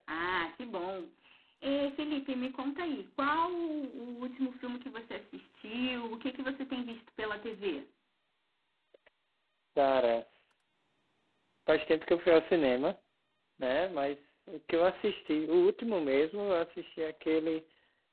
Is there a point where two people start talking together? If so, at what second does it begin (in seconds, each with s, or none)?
none